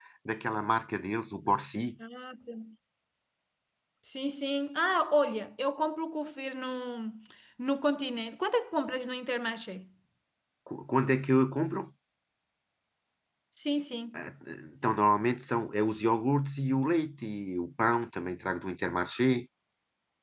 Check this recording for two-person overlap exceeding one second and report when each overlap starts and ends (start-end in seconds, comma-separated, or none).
none